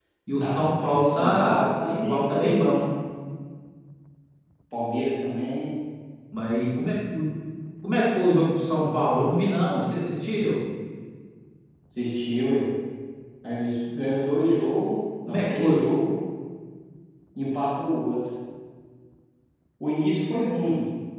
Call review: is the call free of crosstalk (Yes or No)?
No